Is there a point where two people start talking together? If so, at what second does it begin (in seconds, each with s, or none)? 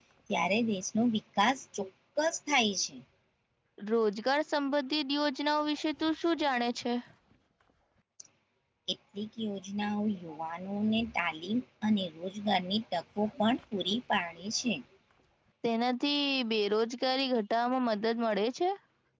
none